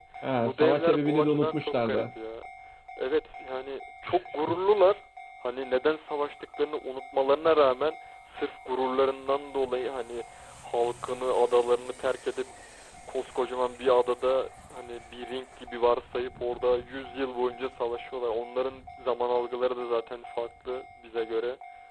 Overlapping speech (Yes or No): Yes